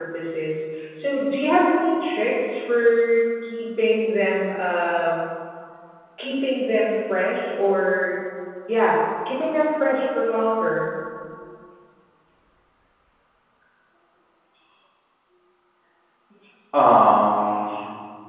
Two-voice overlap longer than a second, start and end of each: none

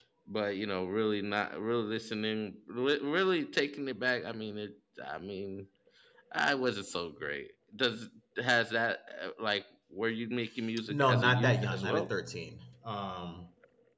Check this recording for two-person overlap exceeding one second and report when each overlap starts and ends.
10.9-12.1

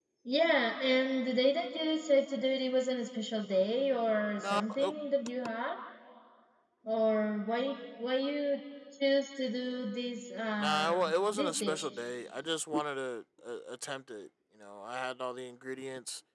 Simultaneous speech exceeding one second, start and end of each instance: 10.6-11.9

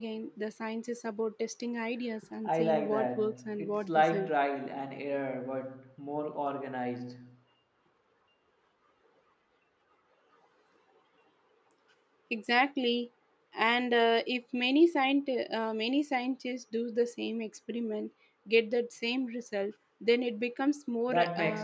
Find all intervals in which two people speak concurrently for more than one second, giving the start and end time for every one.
2.4-4.3

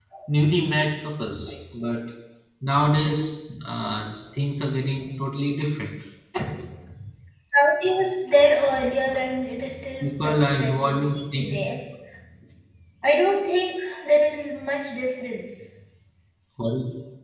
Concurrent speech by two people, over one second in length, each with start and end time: 10.0-11.6

